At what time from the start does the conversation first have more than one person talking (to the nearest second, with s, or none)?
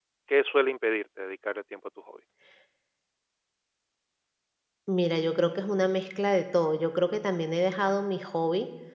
none